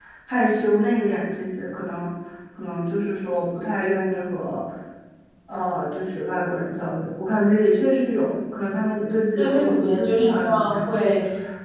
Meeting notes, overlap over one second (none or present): present